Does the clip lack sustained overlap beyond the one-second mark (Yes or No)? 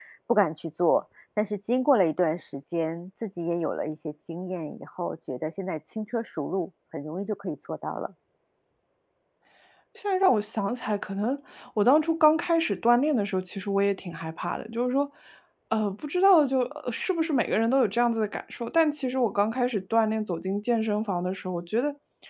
Yes